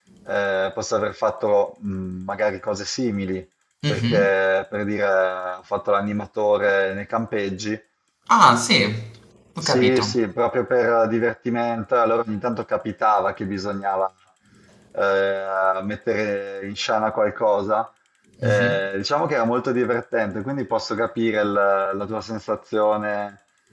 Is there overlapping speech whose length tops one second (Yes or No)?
No